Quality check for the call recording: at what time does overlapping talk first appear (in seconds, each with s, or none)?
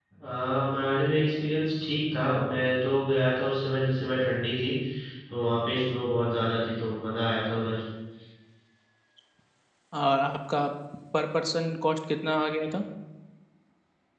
none